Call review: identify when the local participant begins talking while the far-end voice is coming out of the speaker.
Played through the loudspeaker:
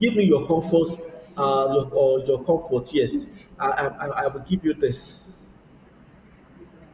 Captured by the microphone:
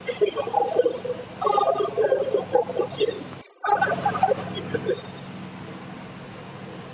none

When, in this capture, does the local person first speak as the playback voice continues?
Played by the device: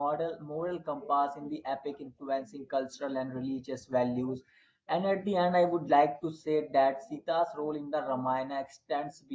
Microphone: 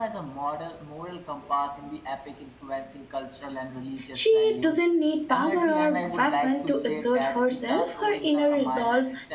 4.1 s

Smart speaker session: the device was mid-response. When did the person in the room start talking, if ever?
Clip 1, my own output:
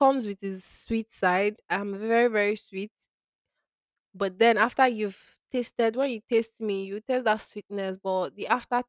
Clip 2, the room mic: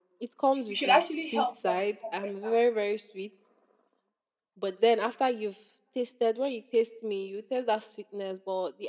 0.7 s

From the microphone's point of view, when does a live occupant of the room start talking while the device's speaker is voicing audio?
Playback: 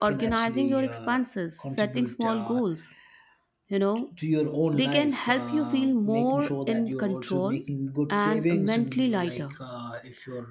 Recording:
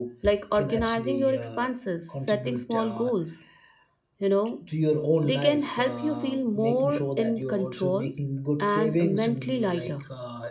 none

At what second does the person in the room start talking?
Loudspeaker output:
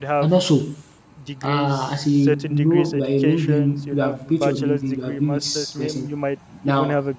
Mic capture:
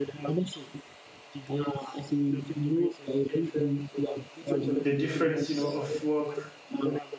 4.5 s

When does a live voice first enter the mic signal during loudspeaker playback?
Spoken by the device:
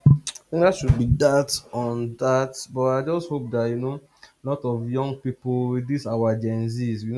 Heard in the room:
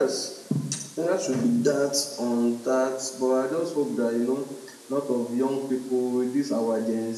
none

